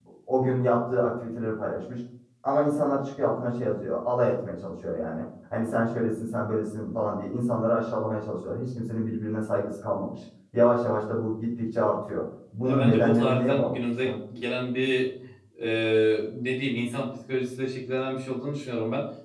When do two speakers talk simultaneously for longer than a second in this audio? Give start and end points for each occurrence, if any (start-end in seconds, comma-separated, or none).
12.7-14.2